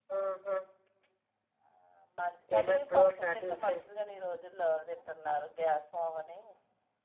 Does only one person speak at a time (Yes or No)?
No